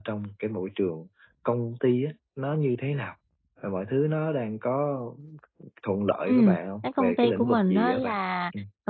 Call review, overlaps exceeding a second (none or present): present